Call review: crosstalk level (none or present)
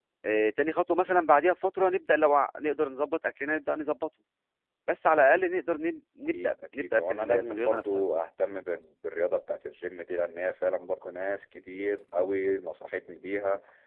present